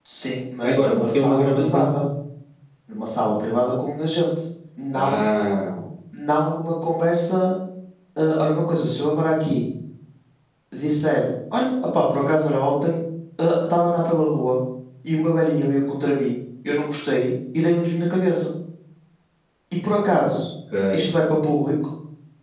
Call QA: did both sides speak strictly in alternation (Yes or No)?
No